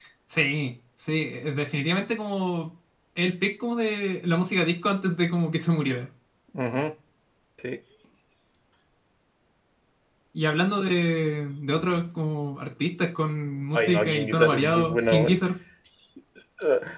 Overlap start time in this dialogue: 14 s

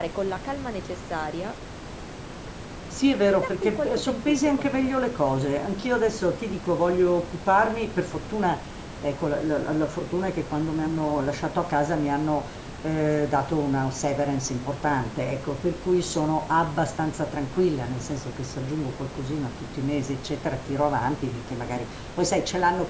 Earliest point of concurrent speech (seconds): 3 s

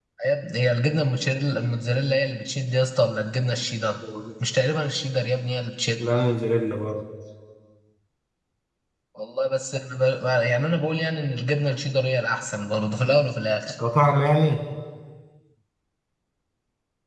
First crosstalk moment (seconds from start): none

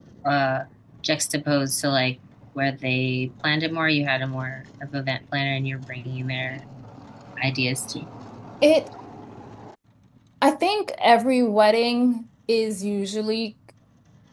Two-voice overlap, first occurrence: none

